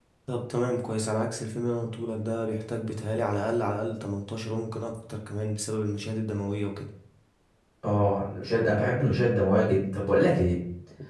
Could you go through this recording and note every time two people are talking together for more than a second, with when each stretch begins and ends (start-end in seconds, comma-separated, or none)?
none